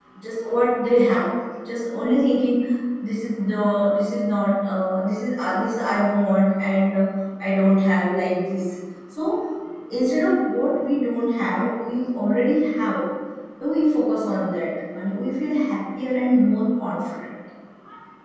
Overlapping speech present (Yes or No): No